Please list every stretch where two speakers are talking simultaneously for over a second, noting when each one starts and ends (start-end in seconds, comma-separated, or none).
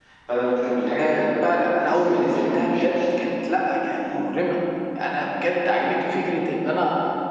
1.8-3.0